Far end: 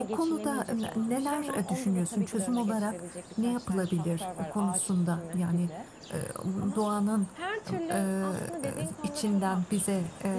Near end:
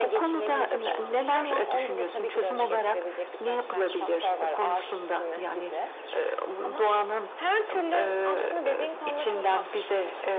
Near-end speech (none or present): none